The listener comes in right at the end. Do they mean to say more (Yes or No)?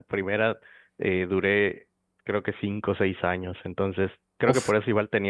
No